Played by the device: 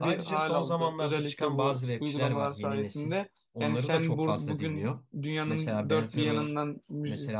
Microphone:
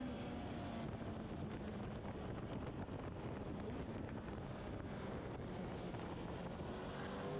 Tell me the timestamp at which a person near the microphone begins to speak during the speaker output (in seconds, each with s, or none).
none